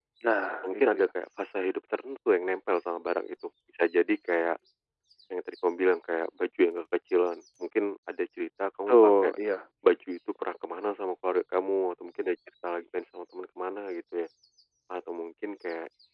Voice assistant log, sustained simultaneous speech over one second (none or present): none